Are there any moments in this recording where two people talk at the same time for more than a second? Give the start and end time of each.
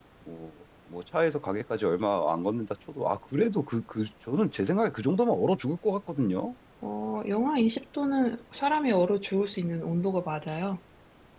none

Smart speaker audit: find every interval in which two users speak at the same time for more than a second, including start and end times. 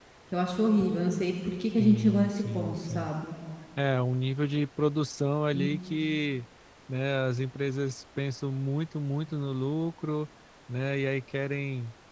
1.8-3.1

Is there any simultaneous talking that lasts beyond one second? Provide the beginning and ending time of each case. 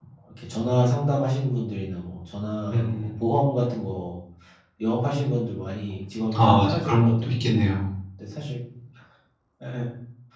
6.3-7.5

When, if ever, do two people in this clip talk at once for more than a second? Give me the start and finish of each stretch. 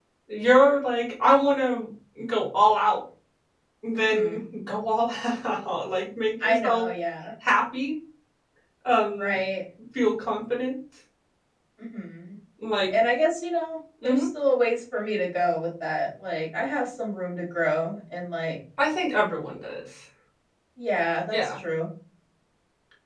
none

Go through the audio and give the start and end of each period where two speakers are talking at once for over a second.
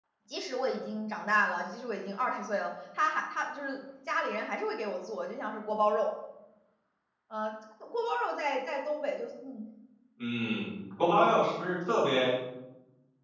none

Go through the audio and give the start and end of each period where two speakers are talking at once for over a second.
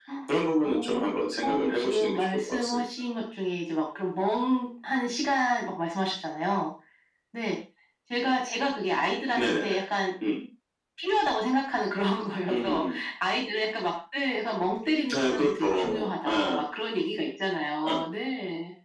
1.4-2.8, 15.1-16.6

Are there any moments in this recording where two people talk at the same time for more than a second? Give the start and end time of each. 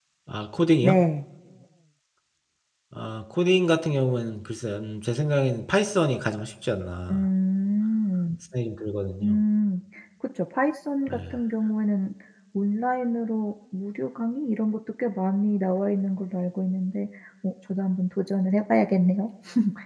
none

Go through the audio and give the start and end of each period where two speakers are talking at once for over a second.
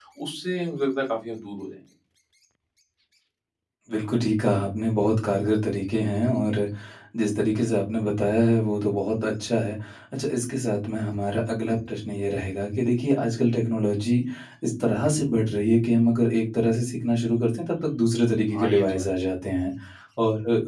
none

